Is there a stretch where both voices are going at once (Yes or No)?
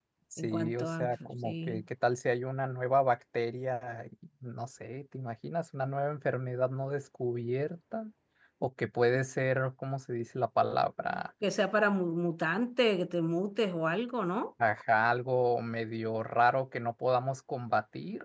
Yes